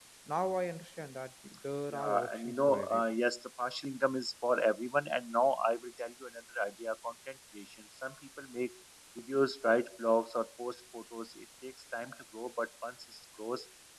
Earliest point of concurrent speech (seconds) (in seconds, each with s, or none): 1.9 s